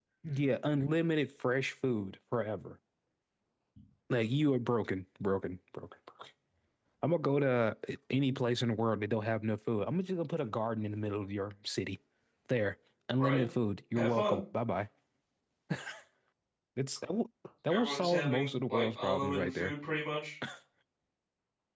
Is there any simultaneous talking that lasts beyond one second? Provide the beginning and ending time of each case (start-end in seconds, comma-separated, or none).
17.7-19.7